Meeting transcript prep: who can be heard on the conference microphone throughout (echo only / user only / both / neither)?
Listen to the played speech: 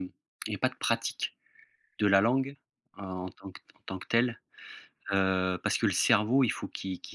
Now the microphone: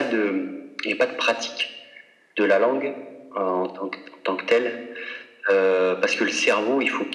echo only